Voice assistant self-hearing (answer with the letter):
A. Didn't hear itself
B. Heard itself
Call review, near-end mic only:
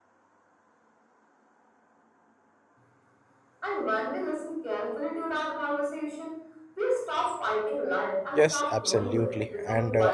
B